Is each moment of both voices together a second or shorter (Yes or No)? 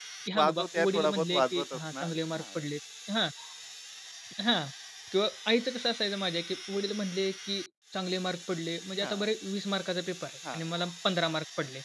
No